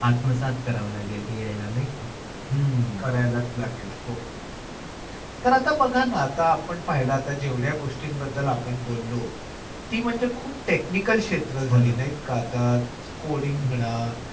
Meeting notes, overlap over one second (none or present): none